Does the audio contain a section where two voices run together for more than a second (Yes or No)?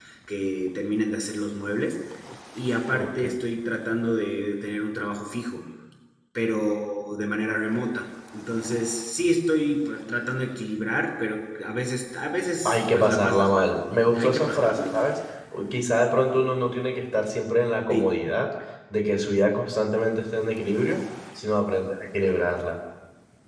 Yes